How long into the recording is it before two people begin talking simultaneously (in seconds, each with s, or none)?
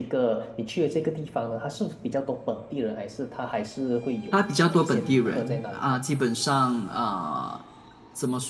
4.3 s